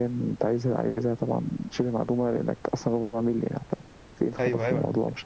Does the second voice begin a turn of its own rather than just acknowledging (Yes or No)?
Yes